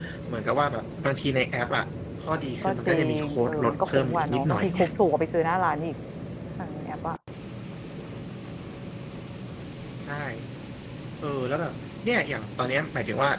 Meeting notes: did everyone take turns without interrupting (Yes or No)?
No